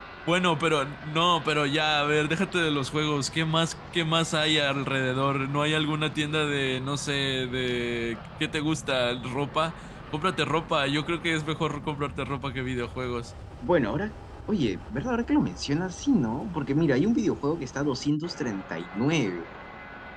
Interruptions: none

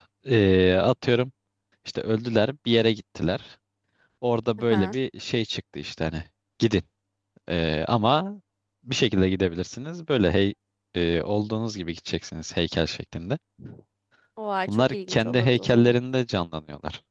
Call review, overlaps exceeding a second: present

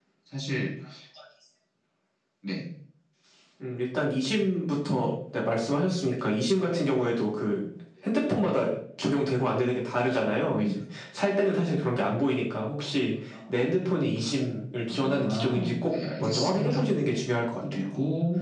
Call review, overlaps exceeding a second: present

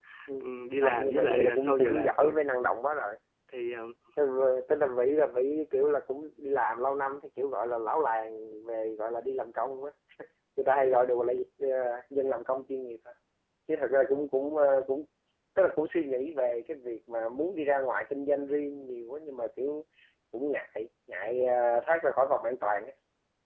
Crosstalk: present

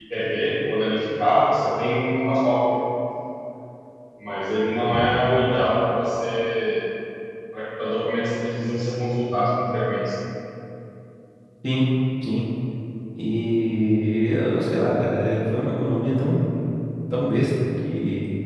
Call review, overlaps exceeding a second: none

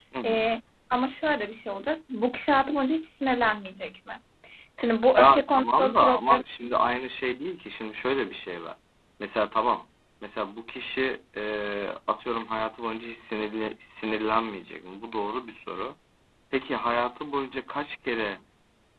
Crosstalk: present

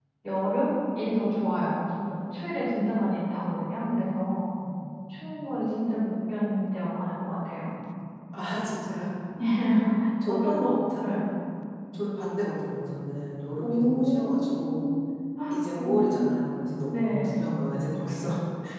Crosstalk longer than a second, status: present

